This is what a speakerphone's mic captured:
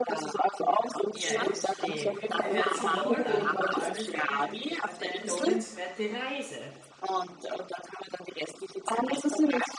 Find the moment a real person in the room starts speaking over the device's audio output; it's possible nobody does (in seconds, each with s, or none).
1.1 s